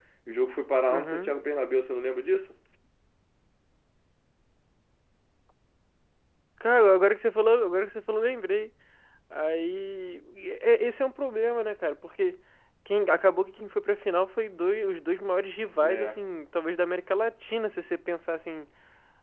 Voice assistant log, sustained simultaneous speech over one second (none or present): none